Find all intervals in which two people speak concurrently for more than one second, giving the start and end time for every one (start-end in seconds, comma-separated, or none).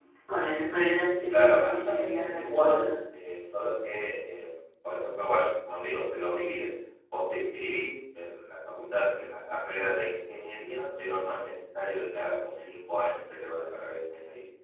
1.3-2.9